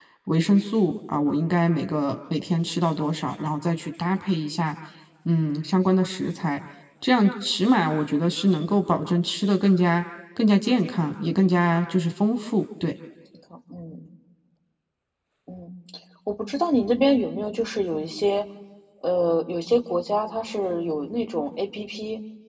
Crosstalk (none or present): none